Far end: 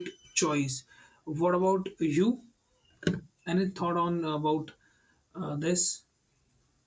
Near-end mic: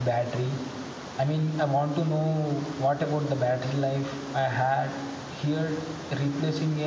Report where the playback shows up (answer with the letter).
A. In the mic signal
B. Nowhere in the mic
B